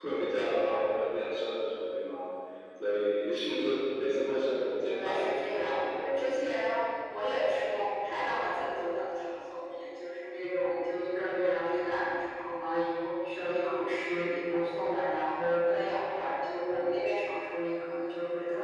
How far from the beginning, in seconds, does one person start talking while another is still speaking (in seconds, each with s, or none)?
4.8 s